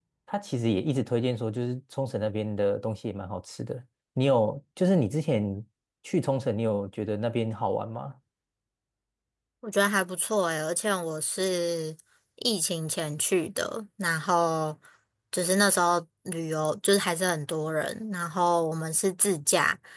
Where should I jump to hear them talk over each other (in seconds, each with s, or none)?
none